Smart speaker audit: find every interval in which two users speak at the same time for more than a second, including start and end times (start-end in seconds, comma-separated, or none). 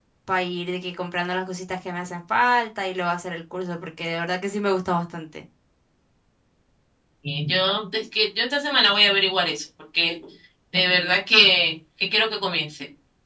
none